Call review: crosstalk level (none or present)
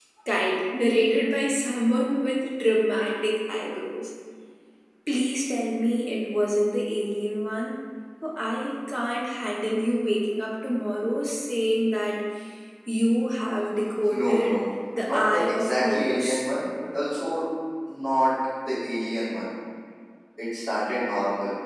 present